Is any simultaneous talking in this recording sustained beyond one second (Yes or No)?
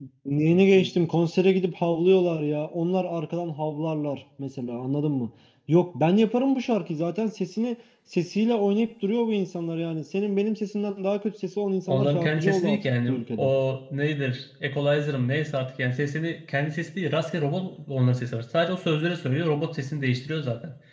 Yes